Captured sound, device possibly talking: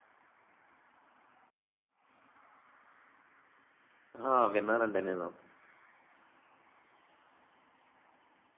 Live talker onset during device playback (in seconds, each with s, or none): 4.2 s